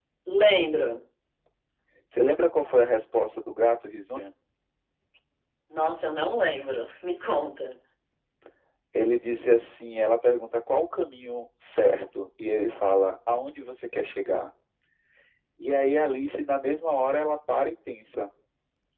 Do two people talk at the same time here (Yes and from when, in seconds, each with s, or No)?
No